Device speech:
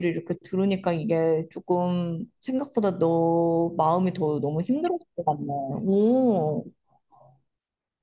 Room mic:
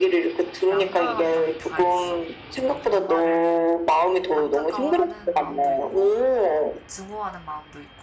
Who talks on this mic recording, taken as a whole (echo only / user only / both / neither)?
both